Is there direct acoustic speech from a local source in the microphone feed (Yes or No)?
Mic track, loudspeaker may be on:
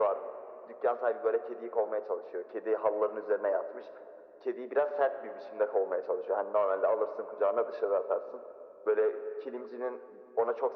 No